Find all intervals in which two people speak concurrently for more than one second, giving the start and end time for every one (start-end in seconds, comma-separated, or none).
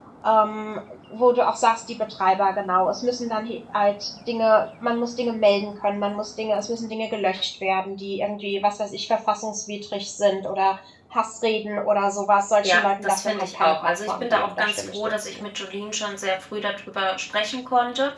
12.6-15.4